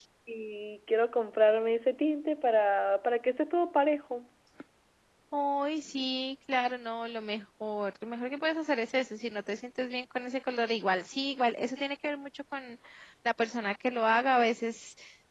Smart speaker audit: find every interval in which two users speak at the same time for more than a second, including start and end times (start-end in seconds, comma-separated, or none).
none